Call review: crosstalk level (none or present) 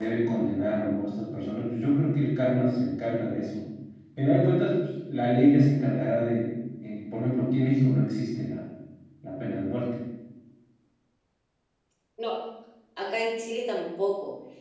none